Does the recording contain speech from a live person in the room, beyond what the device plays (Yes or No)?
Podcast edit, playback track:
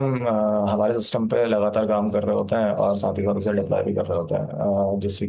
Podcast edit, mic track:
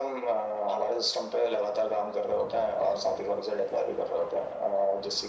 No